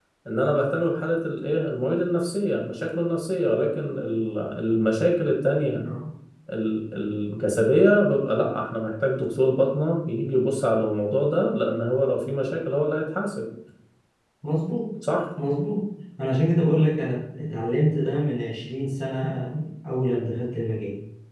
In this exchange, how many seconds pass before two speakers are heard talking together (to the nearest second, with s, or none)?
none